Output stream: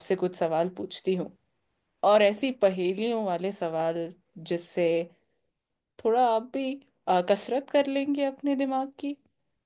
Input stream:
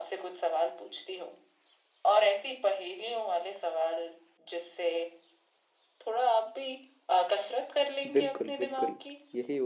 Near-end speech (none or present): present